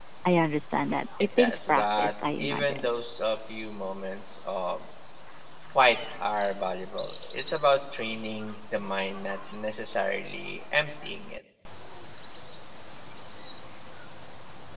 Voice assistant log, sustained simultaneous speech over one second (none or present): present